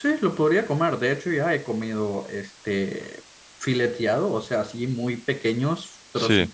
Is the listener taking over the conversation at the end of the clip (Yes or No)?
No